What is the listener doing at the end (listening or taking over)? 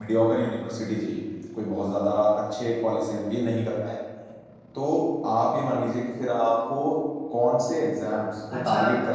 taking over